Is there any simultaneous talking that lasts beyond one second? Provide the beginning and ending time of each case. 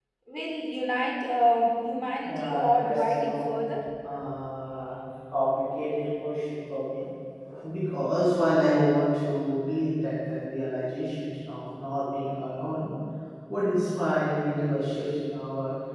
2.2-3.5

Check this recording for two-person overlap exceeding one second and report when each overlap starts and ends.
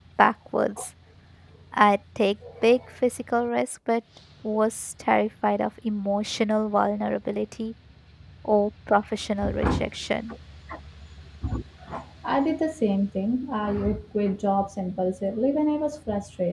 none

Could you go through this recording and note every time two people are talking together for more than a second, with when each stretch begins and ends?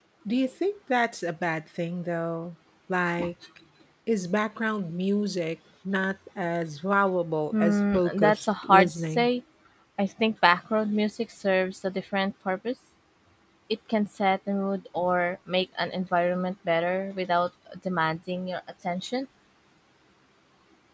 7.6-9.3

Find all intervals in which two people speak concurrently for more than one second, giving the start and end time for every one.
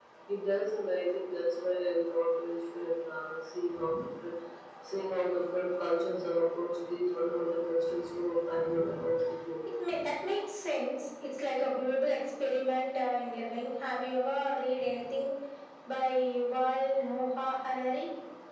none

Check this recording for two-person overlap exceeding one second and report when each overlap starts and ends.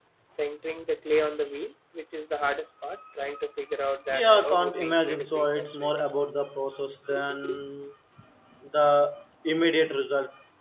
4.1-5.9

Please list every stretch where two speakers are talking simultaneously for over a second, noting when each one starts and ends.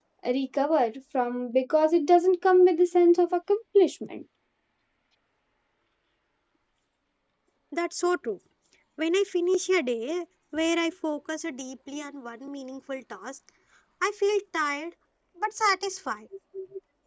none

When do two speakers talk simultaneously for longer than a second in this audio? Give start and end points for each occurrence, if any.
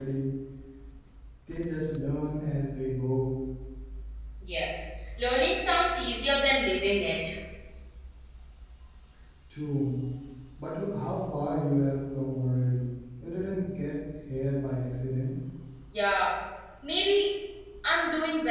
none

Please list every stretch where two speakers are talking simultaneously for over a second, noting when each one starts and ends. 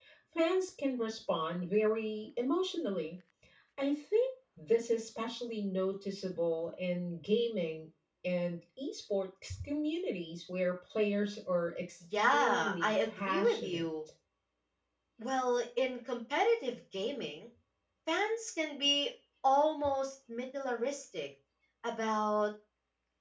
12.2-13.8

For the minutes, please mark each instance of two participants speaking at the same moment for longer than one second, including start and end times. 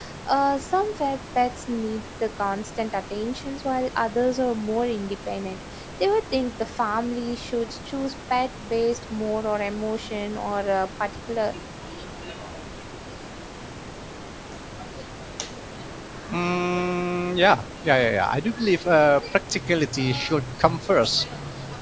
none

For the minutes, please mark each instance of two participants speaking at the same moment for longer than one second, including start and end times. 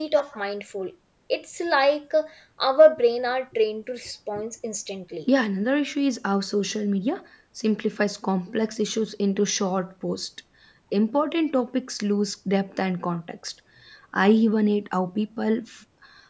none

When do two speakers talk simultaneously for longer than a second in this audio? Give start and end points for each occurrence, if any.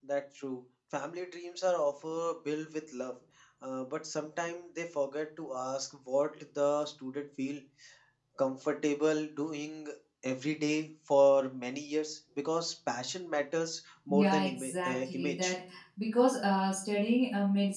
14.1-15.5

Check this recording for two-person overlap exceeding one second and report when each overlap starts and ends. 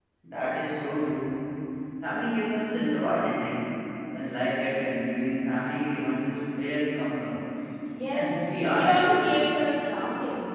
8.1-9.4

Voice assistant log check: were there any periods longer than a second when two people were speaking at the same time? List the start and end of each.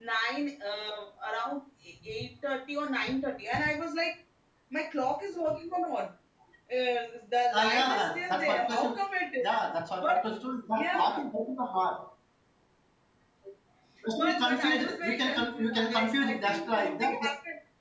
7.5-9.0, 14.2-17.3

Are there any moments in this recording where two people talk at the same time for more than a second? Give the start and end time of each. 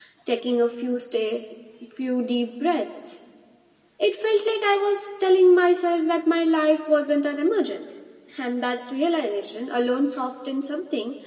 none

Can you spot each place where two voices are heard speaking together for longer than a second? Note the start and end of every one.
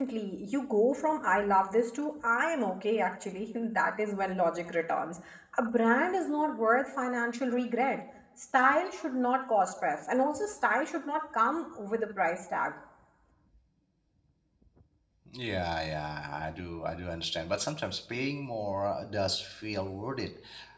none

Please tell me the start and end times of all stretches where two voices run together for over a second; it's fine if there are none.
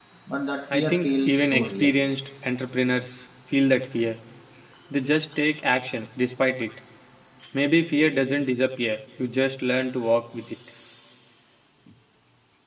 0.7-2.0

